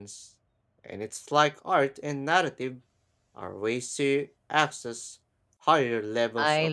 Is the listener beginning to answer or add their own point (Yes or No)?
Yes